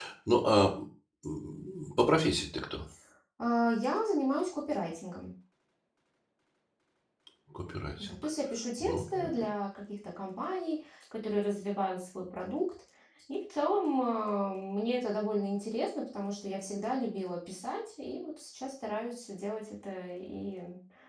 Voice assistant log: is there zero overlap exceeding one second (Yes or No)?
Yes